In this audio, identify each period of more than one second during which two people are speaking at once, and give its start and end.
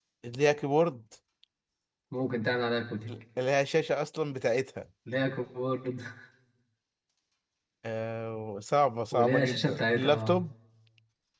9.1-10.4

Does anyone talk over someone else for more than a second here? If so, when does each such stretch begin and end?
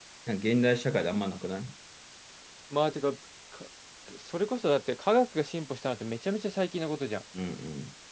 none

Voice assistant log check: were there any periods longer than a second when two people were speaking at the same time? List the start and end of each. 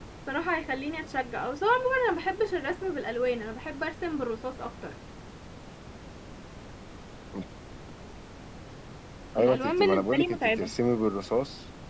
9.4-10.7

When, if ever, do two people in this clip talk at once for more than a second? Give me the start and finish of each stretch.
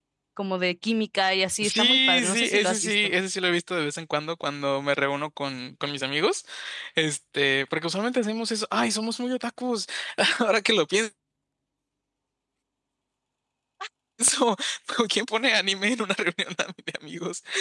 1.6-3.0

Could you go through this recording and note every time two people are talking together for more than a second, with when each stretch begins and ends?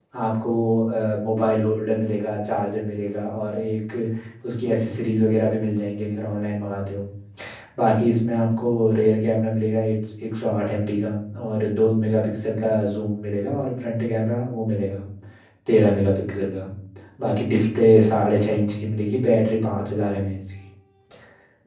none

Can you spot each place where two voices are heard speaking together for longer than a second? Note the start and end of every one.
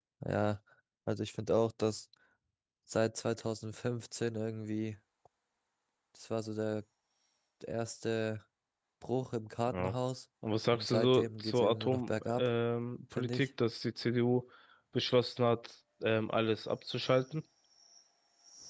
10.7-12.5

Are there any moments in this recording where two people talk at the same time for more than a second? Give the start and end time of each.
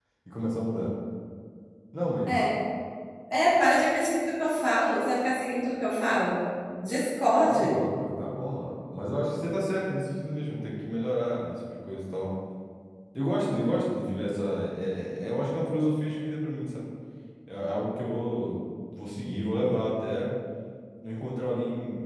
none

